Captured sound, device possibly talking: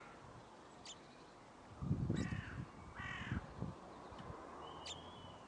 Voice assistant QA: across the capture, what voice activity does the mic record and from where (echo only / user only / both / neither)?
neither